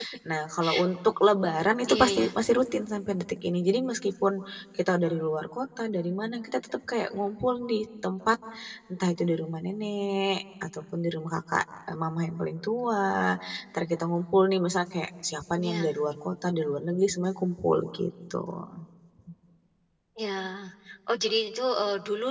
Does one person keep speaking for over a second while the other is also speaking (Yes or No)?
No